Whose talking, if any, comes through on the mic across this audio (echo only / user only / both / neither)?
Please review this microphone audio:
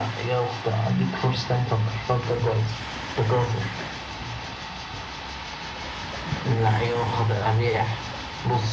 echo only